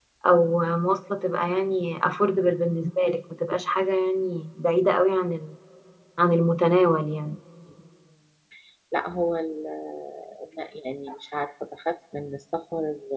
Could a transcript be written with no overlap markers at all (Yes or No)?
Yes